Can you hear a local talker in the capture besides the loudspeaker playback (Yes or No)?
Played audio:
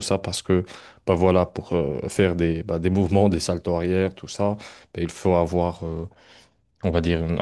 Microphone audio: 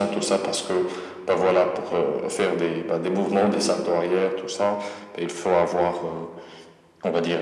No